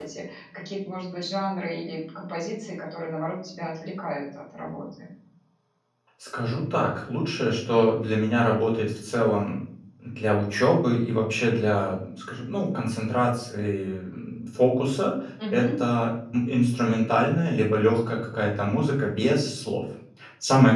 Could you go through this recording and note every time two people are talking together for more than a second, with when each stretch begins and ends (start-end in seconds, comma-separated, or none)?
none